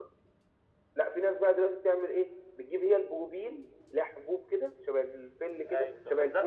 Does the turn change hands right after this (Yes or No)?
Yes